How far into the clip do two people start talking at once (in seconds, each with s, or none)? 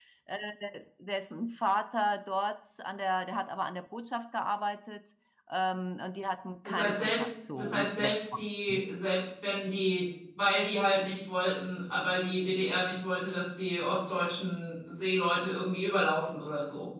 6.6 s